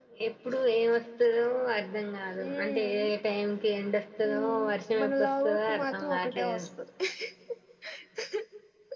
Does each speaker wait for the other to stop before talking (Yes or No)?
No